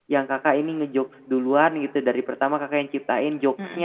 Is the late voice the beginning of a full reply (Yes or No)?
No